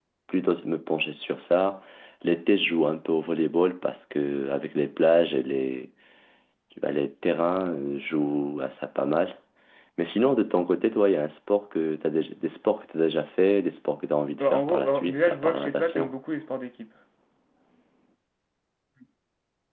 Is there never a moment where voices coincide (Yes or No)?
No